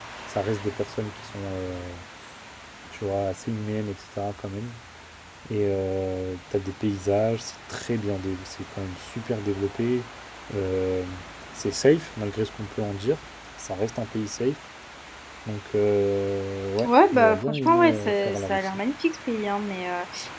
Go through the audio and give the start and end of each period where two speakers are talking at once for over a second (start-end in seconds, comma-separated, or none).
16.8-18.8